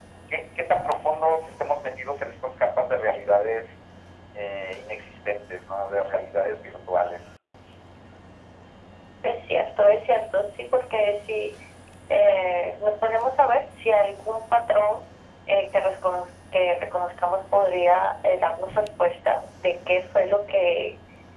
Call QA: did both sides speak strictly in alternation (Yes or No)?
Yes